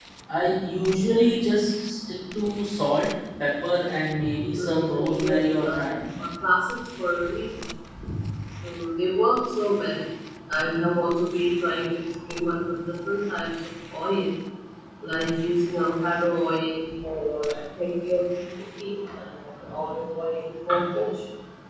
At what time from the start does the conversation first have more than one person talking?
4.6 s

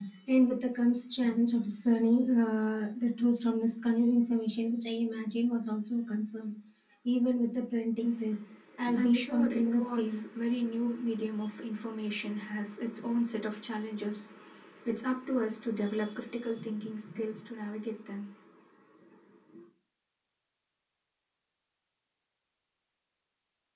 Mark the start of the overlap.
8.8 s

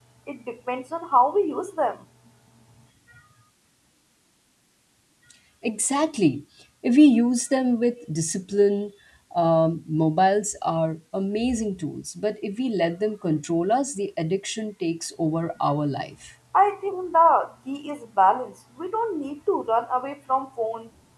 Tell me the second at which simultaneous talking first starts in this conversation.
none

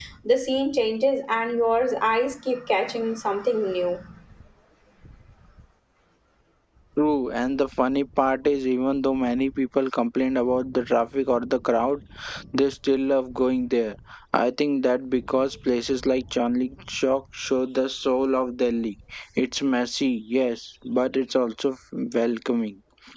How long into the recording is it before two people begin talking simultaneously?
none

